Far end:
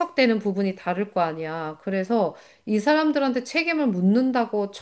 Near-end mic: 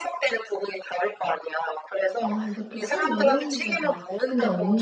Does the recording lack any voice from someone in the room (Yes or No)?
No